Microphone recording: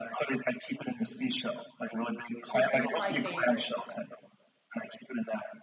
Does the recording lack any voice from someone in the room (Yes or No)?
No